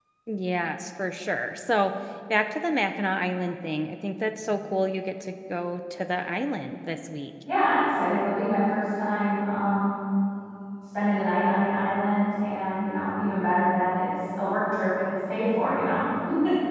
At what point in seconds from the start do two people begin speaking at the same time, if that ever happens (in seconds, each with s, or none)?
none